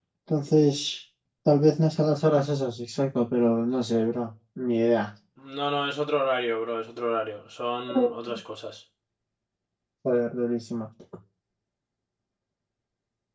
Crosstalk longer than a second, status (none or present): none